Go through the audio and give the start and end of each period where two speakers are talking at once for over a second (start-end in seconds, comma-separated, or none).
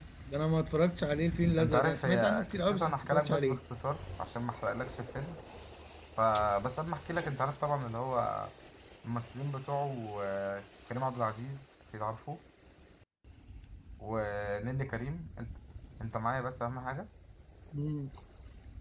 1.6-3.6